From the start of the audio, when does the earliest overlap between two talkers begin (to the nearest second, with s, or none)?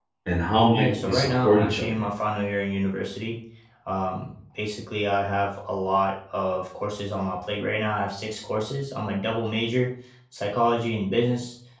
1 s